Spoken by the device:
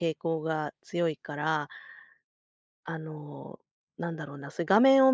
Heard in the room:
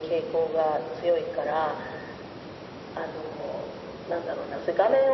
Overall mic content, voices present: echo only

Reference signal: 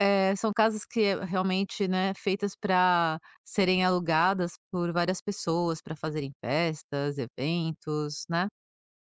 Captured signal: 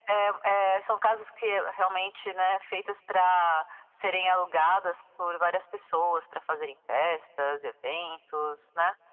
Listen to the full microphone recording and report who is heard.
echo only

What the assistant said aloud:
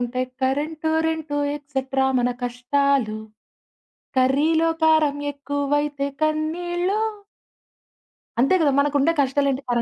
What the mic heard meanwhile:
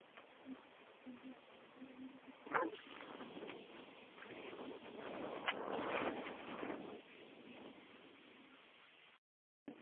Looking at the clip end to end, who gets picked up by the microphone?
neither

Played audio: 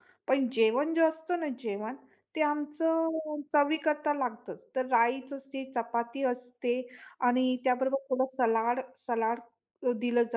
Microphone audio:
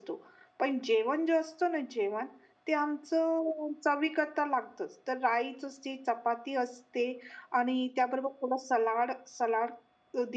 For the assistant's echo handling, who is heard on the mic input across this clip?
echo only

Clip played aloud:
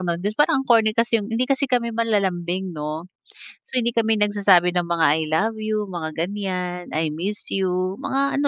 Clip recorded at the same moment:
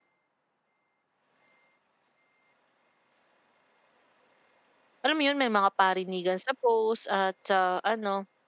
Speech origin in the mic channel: user only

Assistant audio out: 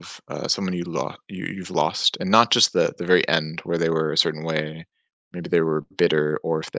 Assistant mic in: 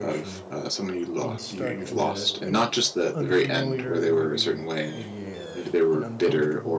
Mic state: both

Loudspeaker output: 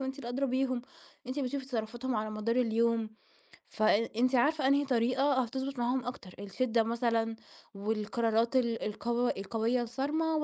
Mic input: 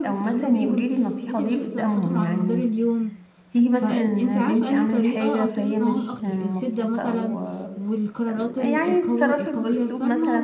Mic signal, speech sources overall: both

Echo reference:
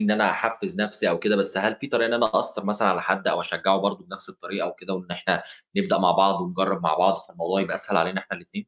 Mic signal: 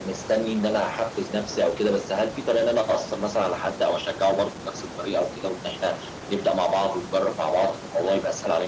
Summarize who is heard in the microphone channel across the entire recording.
echo only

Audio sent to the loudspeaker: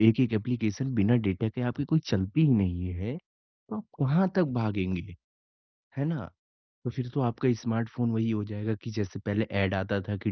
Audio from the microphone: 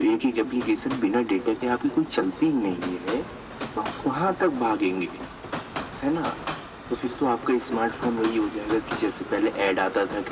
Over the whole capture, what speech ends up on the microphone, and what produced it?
echo only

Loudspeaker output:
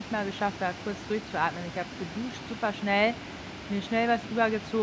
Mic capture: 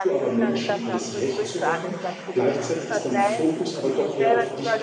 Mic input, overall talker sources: both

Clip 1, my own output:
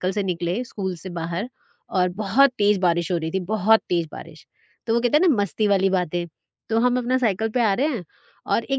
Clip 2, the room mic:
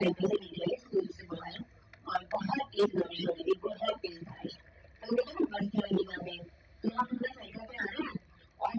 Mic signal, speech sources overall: echo only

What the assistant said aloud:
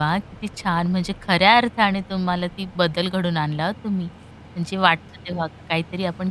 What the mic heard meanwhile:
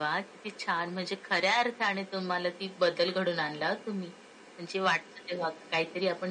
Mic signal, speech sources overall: echo only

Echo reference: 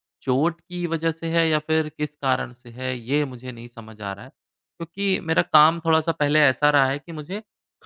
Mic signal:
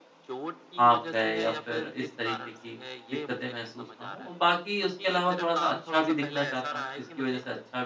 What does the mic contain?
both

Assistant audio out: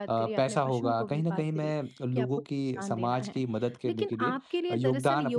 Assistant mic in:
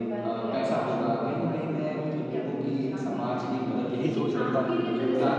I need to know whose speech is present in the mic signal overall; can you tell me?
both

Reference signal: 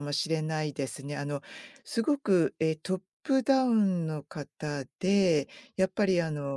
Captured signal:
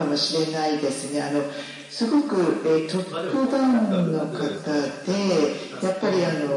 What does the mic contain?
both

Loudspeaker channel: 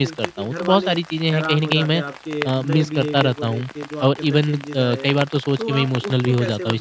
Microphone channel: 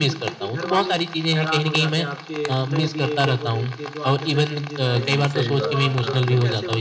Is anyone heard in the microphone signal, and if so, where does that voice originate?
both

